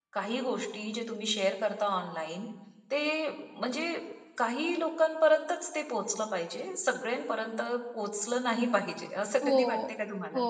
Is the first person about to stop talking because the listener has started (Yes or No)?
Yes